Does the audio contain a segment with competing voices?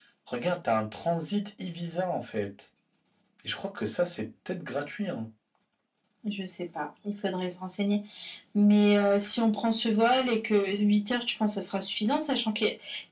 No

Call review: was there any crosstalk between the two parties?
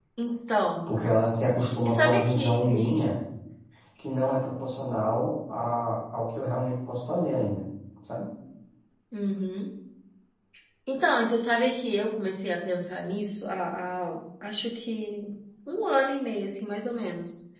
Yes, from 1.9 s

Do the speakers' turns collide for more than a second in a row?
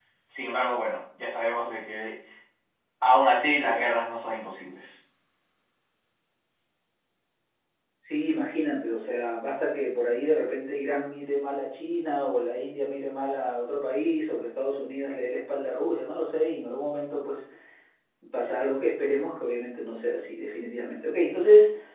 No

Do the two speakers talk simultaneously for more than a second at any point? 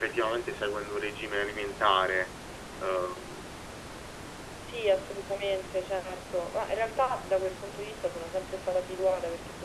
No

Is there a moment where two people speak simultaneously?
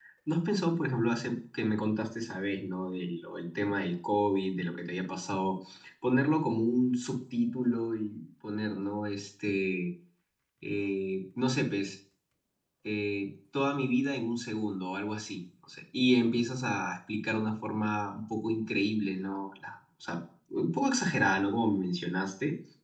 No

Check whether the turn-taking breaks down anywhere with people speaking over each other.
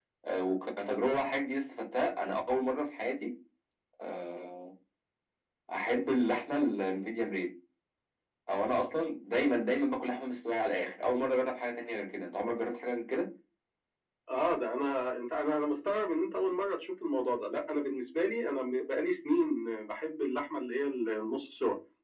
No

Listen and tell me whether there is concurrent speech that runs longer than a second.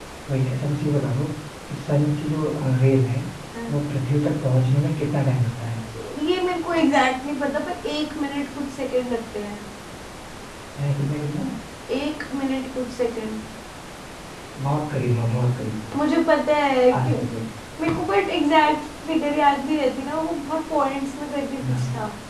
No

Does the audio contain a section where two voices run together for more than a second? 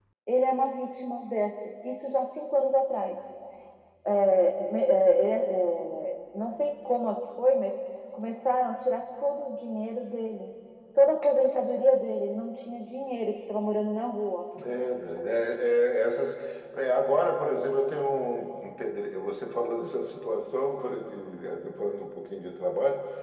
No

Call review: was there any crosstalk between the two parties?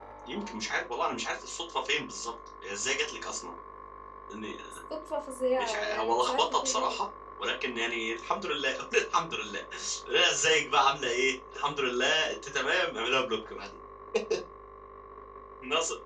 Yes, from 5.6 s

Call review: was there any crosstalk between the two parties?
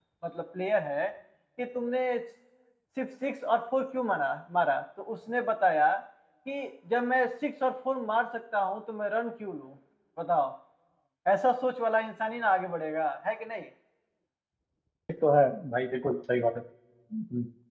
No

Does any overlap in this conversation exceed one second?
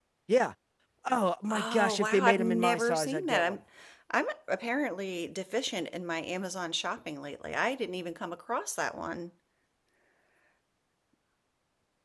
Yes, from 1.5 s

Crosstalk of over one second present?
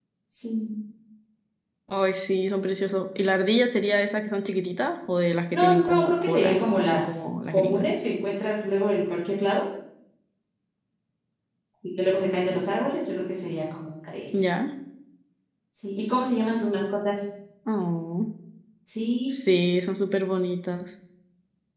Yes, from 5.5 s

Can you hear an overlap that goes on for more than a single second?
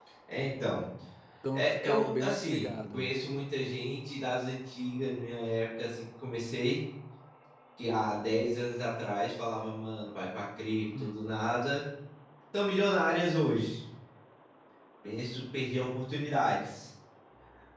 Yes, from 1.5 s

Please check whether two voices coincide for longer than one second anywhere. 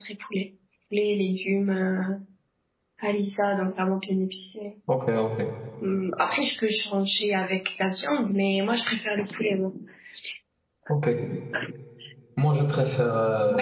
No

